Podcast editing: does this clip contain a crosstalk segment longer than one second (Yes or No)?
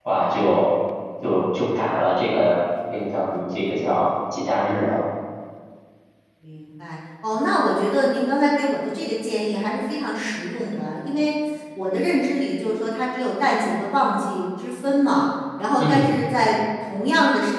No